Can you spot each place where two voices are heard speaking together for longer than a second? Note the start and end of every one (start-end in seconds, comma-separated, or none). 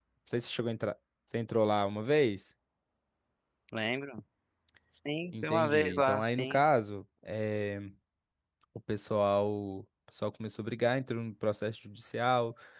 5.4-6.6